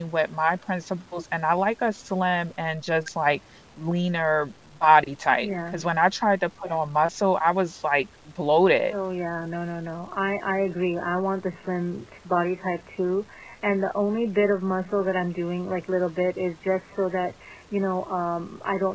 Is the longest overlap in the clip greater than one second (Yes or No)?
No